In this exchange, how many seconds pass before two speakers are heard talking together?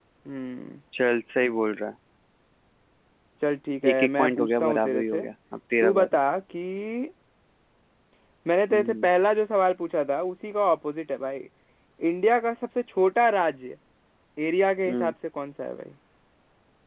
3.9 s

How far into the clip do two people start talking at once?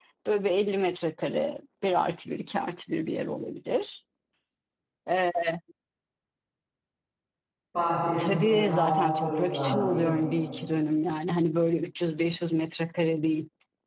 8.2 s

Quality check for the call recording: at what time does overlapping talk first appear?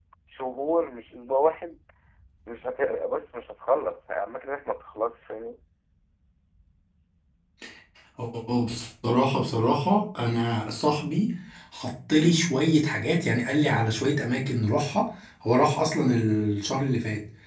none

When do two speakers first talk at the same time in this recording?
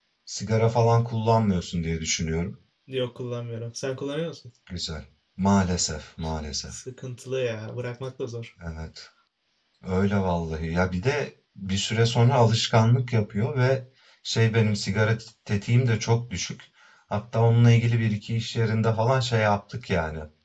none

